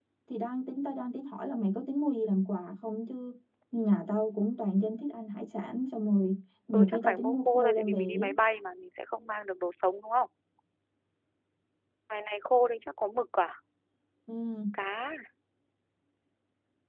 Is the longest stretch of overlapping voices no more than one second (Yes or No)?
No